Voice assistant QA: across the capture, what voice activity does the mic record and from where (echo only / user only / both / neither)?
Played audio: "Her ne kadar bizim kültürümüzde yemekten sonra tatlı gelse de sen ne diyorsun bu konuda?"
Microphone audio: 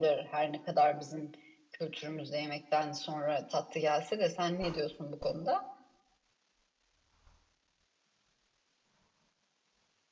echo only